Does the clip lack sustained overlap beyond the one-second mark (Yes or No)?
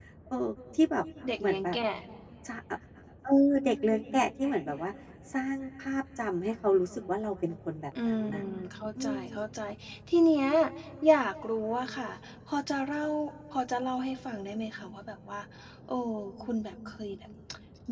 Yes